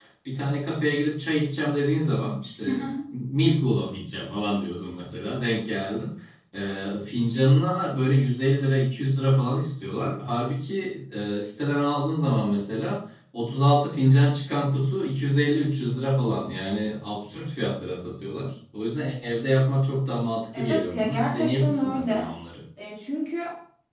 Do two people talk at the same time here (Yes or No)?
Yes